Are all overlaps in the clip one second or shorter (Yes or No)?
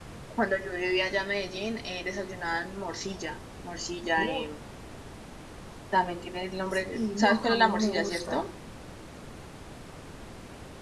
No